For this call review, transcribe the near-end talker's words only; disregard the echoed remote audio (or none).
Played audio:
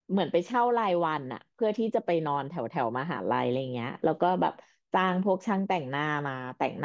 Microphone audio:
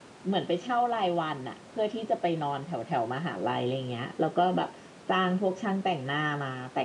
none